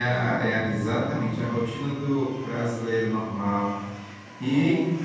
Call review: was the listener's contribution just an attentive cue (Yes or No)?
Yes